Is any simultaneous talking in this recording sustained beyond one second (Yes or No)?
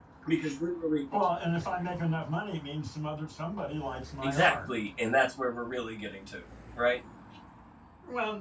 No